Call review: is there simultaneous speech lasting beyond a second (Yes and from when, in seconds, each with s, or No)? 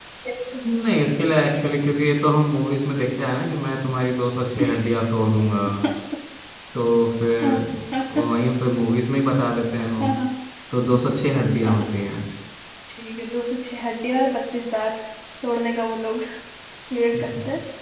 No